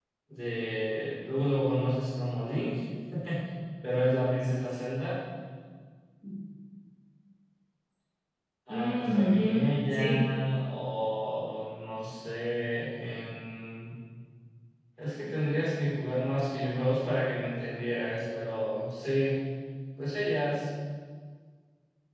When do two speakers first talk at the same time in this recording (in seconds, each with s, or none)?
8.7 s